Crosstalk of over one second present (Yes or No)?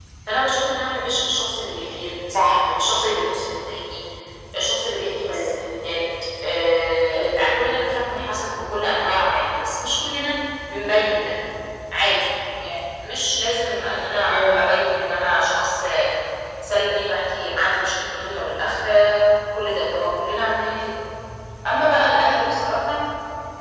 No